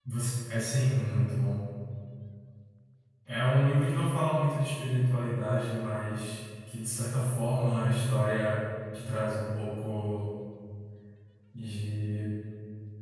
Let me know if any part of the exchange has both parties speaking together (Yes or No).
No